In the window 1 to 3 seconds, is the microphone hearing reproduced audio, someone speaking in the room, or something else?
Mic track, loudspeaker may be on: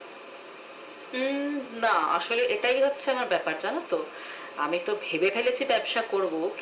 echo only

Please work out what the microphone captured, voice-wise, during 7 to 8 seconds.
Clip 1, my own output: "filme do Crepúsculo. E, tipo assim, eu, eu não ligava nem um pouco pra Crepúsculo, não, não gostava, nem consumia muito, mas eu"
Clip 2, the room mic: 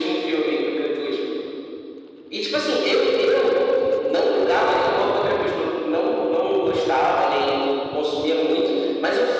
echo only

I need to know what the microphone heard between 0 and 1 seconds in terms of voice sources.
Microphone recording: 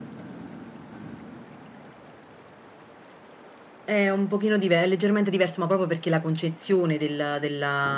neither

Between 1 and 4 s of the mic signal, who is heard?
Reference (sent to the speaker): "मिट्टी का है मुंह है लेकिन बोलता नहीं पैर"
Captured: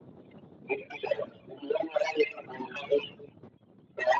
echo only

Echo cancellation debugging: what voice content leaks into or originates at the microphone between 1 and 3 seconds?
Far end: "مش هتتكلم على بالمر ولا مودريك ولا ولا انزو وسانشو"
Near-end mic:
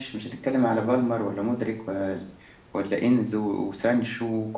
echo only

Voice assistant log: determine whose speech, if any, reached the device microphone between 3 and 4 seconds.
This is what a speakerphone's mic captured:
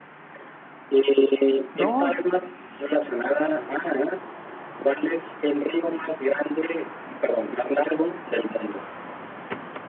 echo only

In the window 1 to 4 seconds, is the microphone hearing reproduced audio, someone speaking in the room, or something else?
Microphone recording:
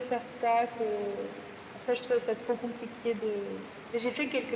echo only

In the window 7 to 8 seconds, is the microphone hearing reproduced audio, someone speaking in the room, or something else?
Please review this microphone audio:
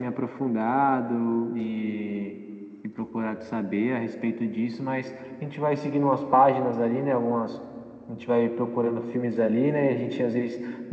echo only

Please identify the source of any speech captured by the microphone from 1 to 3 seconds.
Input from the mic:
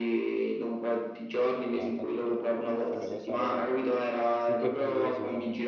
both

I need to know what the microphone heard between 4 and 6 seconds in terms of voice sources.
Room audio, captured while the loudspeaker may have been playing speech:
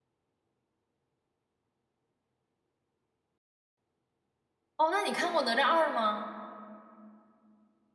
user only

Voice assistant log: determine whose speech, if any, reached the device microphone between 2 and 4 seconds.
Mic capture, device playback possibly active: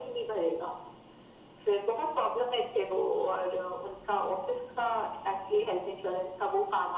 echo only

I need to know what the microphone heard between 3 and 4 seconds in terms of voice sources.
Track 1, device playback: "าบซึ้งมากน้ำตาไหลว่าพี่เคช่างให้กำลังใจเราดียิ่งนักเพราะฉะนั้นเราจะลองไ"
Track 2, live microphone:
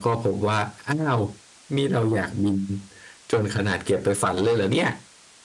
user only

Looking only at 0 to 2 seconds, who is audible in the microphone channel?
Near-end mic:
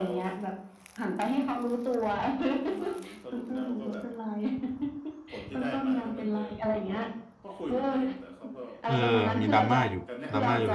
echo only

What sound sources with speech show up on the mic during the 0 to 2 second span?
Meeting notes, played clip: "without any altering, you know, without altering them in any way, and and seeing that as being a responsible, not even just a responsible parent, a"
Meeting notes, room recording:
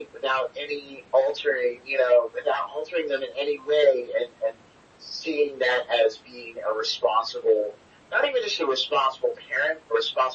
echo only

